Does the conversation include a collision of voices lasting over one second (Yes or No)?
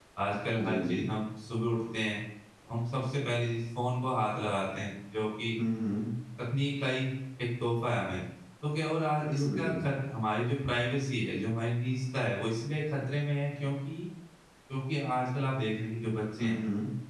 No